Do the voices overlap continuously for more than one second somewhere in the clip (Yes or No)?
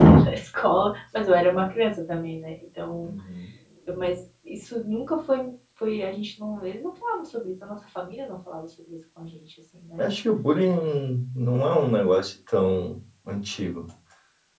No